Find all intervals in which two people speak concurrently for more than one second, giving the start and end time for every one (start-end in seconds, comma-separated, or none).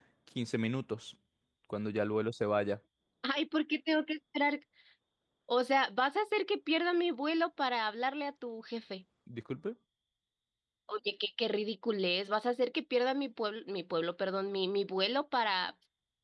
none